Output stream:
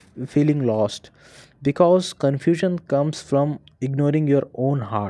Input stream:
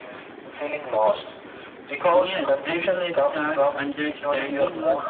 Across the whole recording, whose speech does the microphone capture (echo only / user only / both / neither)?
both